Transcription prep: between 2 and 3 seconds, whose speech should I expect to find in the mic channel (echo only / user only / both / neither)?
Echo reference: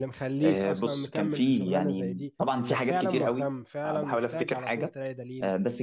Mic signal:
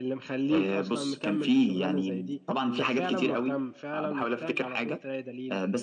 echo only